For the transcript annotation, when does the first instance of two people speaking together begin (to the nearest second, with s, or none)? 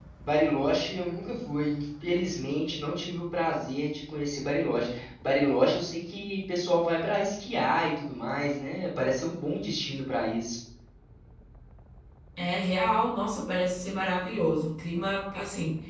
none